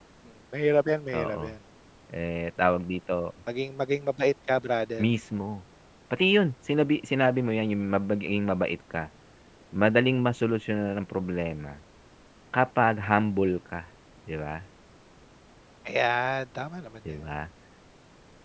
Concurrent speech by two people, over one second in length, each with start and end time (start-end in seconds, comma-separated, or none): none